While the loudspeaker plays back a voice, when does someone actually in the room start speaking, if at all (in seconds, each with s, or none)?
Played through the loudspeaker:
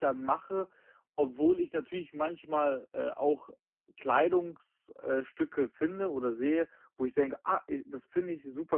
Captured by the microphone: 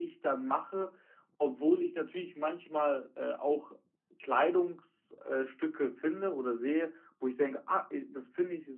none